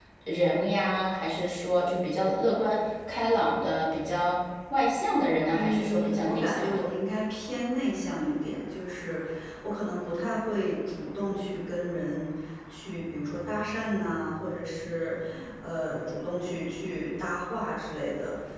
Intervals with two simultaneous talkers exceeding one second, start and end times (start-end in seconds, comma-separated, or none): 5.4-6.8